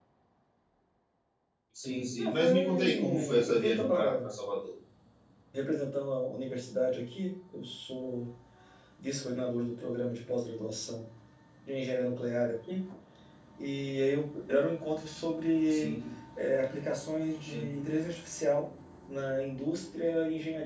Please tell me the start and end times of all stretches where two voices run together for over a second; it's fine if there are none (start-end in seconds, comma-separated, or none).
2.1-4.3